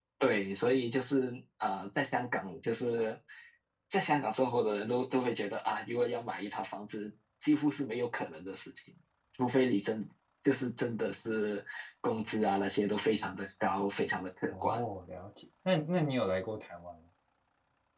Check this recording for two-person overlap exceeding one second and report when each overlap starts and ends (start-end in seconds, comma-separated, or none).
none